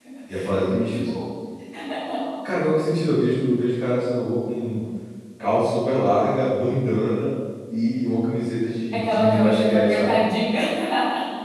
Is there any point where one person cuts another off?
Yes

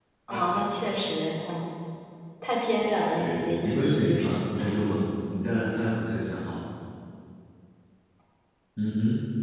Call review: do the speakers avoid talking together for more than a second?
No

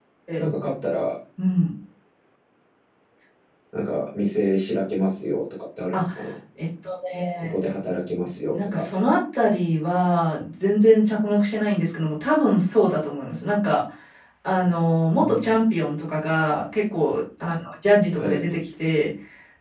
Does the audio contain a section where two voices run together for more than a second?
No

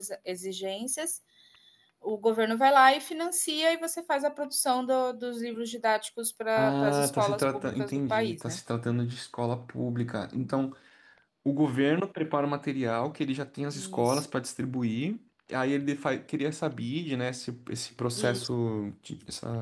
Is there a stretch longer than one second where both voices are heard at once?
Yes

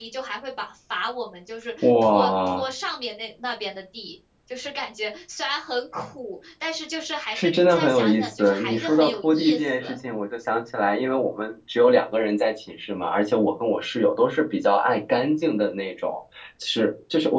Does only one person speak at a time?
No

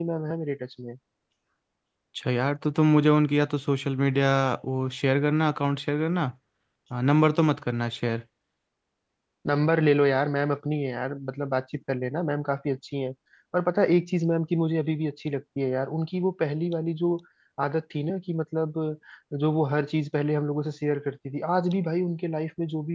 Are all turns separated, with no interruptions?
Yes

